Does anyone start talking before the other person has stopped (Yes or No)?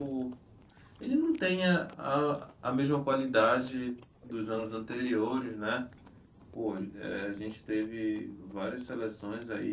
No